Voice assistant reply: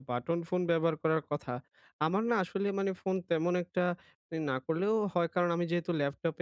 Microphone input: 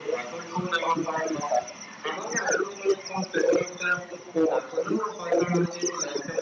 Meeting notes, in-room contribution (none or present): none